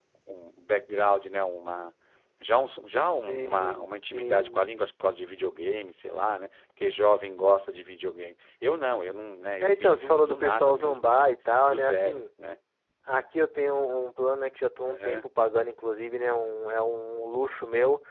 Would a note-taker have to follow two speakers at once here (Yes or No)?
Yes